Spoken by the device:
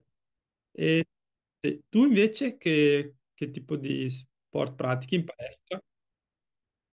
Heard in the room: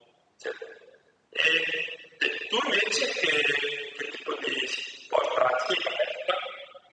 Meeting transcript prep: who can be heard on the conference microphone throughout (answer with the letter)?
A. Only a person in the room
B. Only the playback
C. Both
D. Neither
B